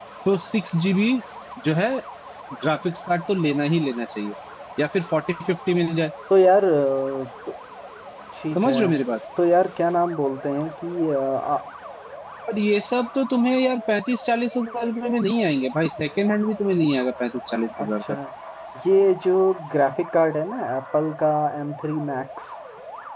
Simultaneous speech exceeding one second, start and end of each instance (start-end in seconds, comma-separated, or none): none